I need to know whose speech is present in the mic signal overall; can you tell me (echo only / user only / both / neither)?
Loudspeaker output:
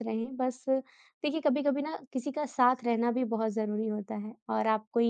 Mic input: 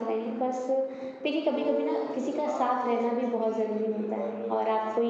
both